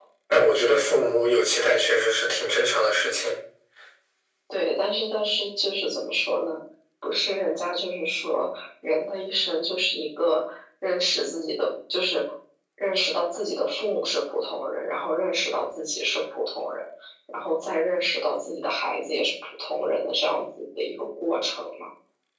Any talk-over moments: No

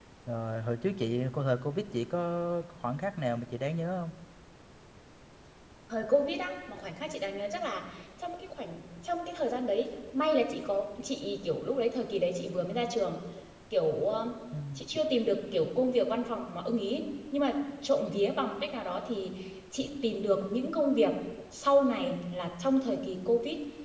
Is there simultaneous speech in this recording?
No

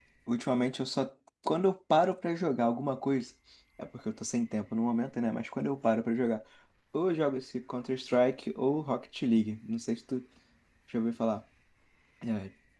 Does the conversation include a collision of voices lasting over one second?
No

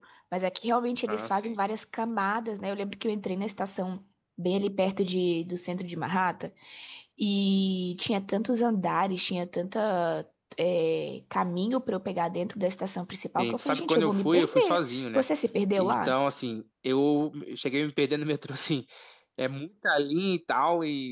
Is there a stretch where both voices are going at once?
Yes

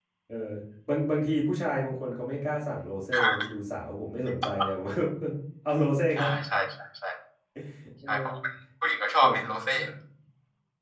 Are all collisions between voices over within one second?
Yes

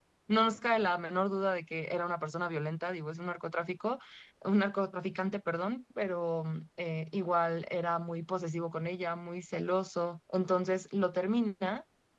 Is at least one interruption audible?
No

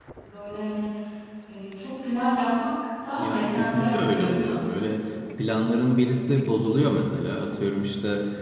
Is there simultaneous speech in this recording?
Yes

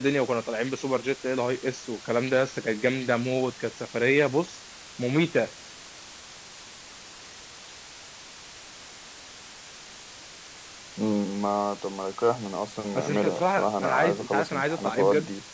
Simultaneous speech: Yes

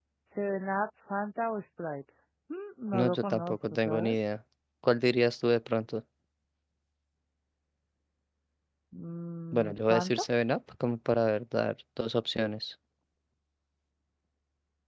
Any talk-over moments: Yes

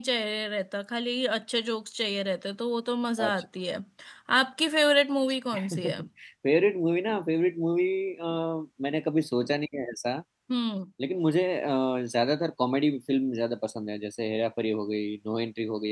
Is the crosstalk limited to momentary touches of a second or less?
Yes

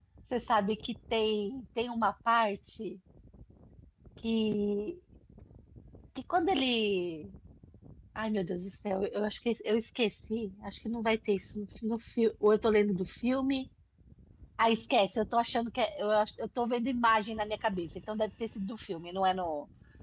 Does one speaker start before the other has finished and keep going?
No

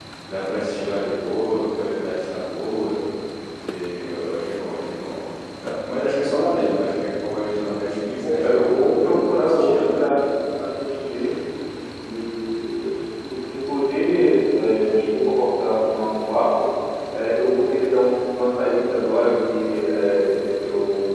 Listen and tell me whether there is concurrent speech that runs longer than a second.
Yes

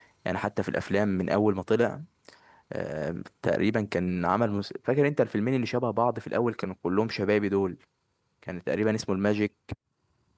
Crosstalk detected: No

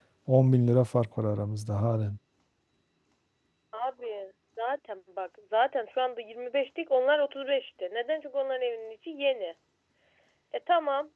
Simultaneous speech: No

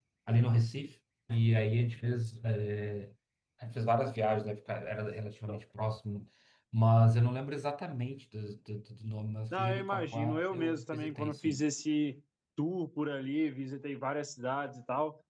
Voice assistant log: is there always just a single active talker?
No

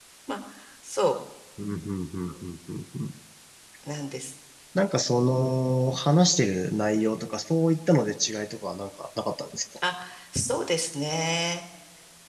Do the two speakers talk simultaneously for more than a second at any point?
No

